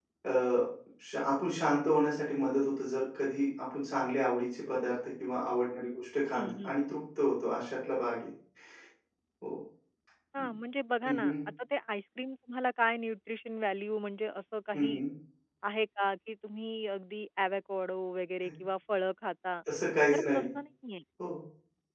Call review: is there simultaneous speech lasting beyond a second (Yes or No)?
No